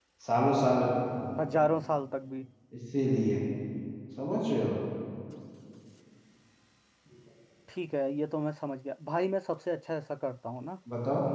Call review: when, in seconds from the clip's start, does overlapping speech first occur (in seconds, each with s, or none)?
none